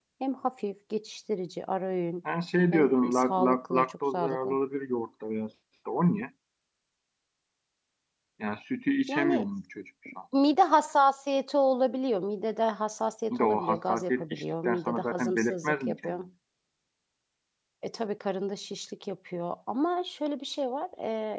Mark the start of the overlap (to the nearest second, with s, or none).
3 s